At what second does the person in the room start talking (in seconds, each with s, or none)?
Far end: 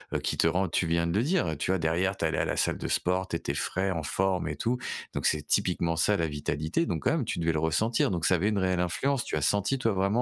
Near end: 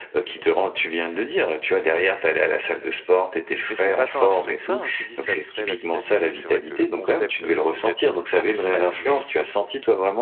3.7 s